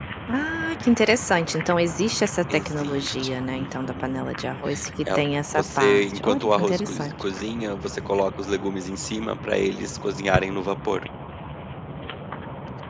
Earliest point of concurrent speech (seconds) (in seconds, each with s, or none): 2.5 s